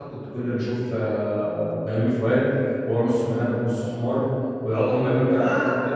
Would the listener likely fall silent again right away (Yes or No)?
Yes